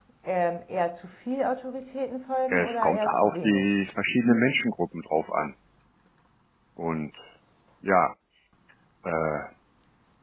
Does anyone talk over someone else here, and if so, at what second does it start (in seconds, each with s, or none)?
2.5 s